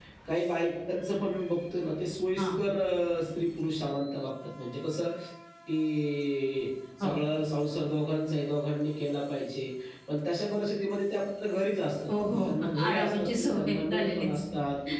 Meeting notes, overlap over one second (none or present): present